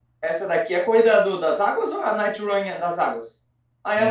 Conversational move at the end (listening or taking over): taking over